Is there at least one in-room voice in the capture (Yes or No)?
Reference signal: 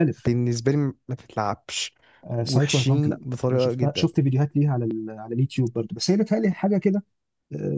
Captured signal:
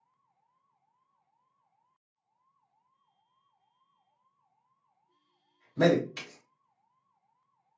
Yes